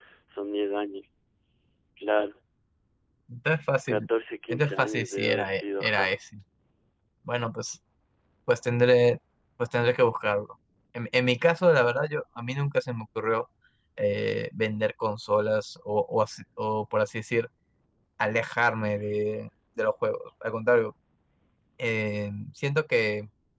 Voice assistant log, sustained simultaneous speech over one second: present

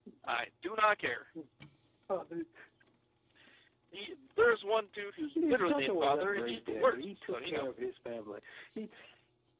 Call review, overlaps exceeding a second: present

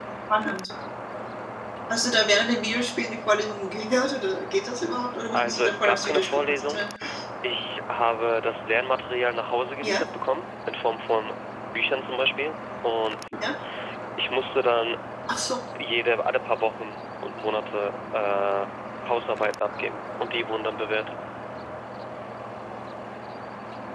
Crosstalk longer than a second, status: present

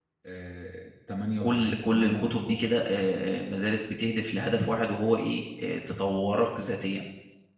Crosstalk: present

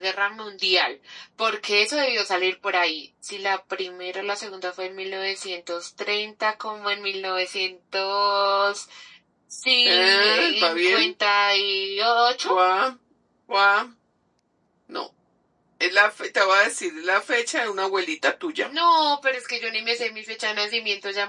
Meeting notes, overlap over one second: present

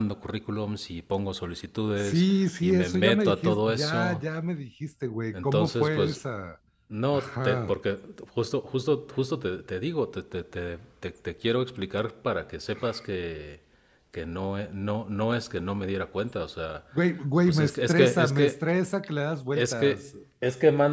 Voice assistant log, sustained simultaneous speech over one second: present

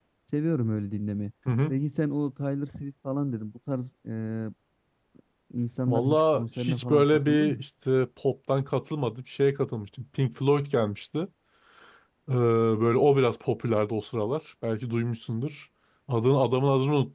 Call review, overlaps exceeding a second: present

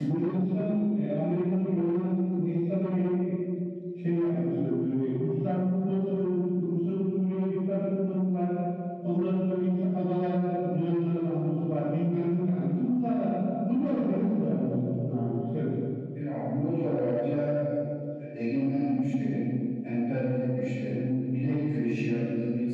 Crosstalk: none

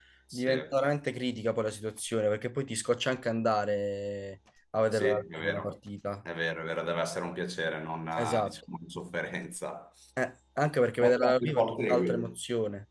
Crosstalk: present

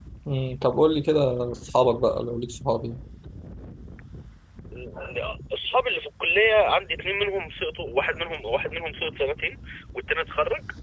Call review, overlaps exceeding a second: none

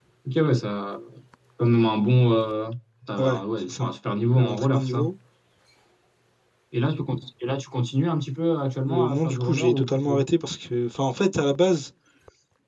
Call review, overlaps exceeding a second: present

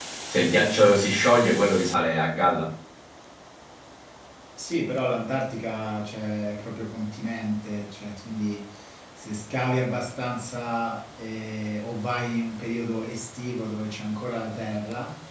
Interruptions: none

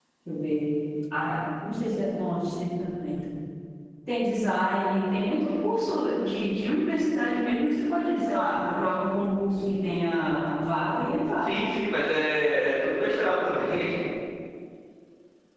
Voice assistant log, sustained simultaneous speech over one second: none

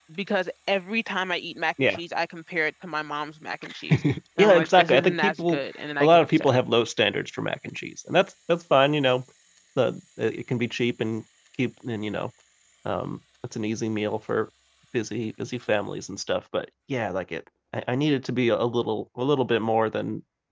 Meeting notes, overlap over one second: present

